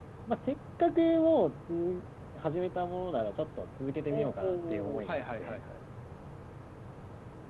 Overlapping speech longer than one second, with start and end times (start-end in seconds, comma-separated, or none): 4.1-5.6